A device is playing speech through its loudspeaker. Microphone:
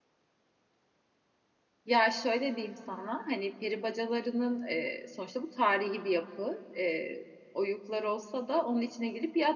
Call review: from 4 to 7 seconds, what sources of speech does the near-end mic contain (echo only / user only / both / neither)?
user only